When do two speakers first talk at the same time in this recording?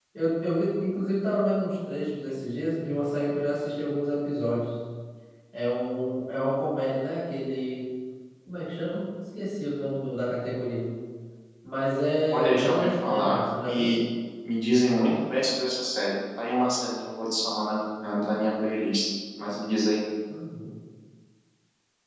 12 s

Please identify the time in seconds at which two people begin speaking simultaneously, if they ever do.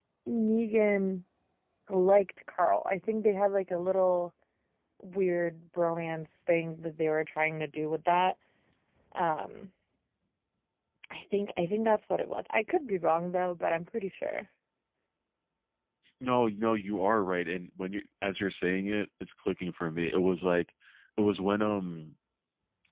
none

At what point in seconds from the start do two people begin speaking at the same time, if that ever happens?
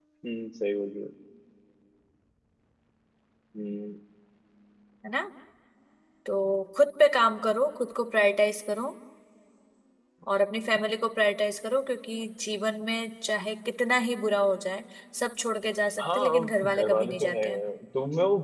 16 s

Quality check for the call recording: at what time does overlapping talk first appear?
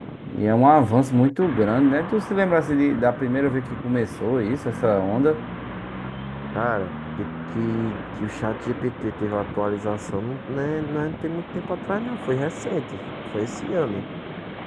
none

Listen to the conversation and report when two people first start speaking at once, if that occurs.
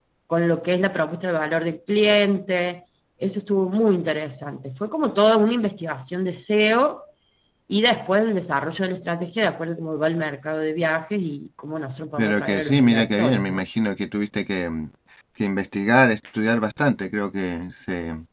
12 s

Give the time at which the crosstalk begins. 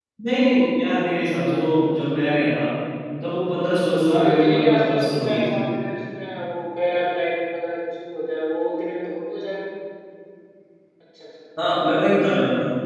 4 s

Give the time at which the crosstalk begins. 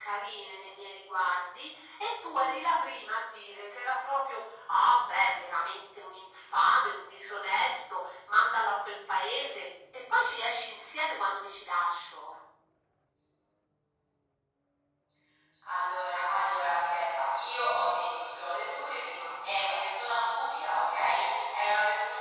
none

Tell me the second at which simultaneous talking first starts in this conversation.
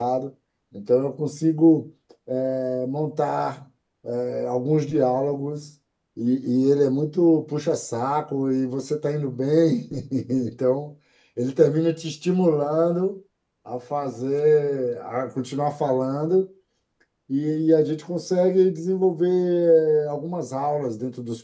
none

